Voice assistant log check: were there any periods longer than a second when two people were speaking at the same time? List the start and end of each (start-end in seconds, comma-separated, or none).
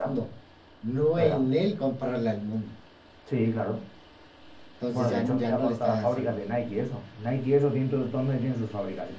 4.9-6.9